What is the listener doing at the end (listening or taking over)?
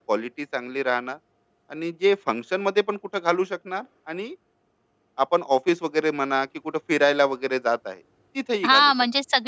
taking over